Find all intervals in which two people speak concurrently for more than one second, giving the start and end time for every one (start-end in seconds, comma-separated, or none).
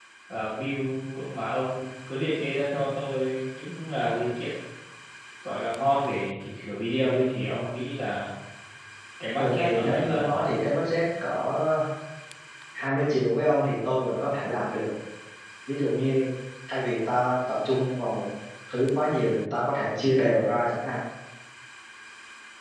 9.4-10.7